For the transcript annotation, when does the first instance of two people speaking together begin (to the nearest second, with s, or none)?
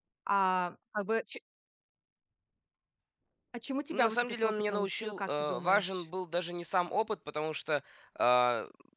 4 s